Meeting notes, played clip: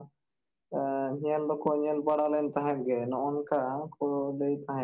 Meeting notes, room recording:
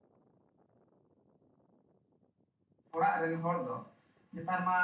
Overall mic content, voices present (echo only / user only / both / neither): user only